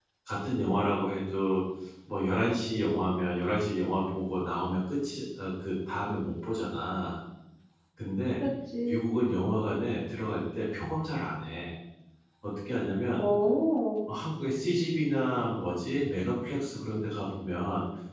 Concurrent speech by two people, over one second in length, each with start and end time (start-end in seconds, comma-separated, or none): none